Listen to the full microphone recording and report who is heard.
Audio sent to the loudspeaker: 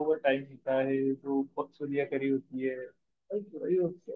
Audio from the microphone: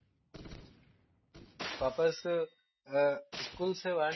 user only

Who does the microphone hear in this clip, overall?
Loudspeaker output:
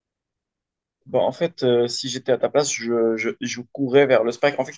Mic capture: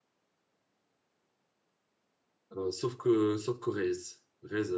user only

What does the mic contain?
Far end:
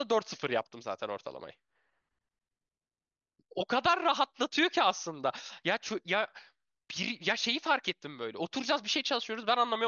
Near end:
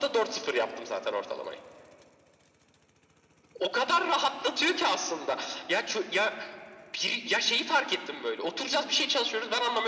echo only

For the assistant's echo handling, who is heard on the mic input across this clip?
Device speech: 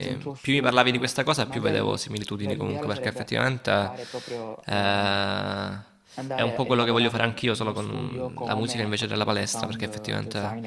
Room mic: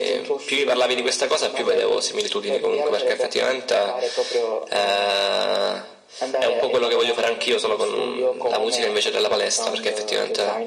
echo only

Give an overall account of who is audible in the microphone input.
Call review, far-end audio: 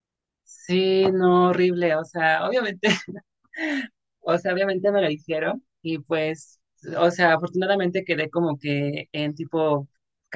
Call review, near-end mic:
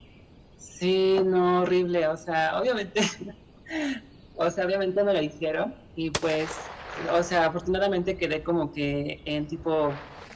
echo only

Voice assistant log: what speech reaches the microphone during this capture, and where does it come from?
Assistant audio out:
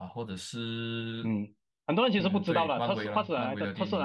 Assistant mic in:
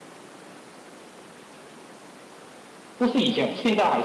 user only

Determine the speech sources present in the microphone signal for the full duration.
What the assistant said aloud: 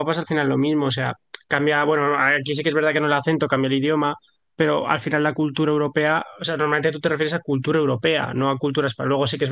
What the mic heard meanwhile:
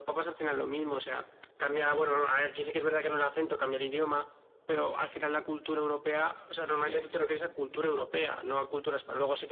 both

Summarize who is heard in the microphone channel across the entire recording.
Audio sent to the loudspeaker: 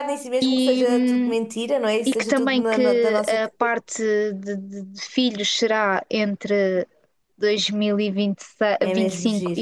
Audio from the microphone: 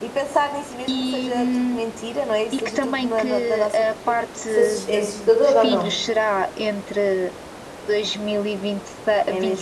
both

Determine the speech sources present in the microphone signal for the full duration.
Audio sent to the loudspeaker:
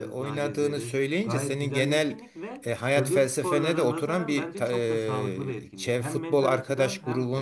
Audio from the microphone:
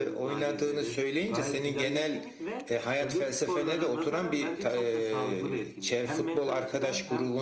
echo only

